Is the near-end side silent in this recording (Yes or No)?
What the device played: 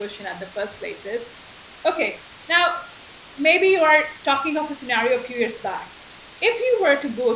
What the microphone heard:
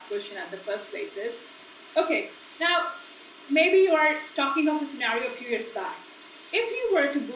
Yes